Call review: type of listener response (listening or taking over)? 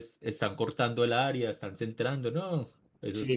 taking over